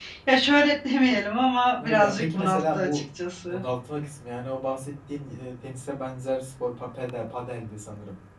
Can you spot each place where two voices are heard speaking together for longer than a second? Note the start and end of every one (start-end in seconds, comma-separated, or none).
1.8-3.0